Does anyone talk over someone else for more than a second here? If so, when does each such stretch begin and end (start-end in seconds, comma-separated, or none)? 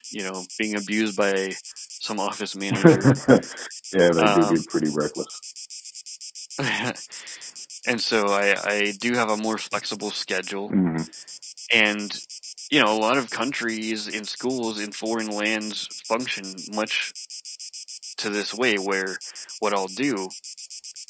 none